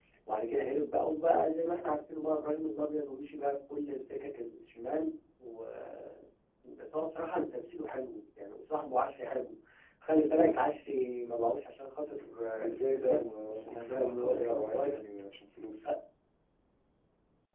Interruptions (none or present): present